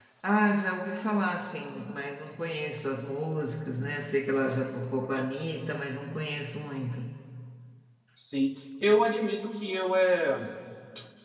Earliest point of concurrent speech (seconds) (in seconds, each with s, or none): none